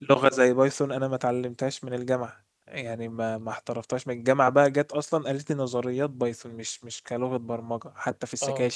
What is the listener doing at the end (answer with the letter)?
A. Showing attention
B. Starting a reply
A